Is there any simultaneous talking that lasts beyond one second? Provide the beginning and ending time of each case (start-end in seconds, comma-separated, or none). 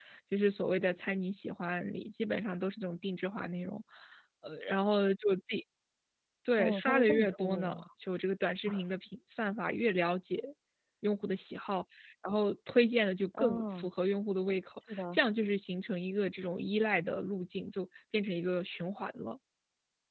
6.6-7.8